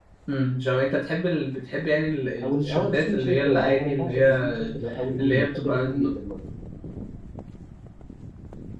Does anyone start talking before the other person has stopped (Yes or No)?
Yes